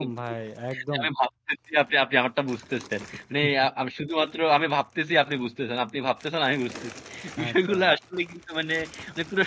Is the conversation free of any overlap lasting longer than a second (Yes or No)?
Yes